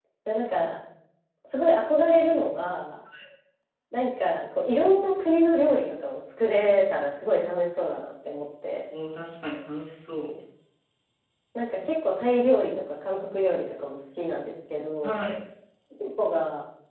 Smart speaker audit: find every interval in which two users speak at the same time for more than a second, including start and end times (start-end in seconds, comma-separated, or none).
none